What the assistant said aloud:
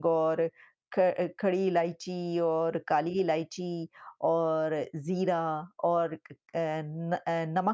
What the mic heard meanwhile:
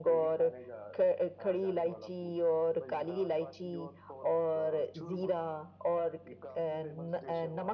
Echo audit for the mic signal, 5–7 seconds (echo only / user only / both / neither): both